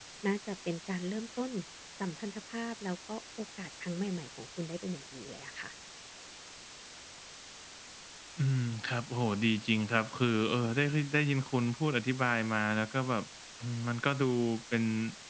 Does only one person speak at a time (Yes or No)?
Yes